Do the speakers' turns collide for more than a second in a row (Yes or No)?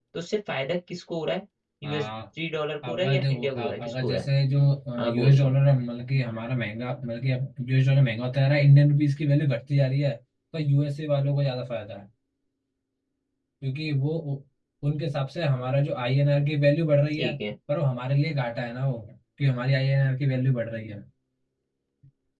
Yes